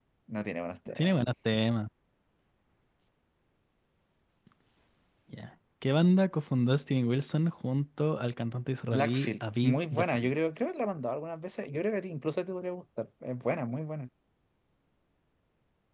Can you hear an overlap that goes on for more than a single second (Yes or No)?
Yes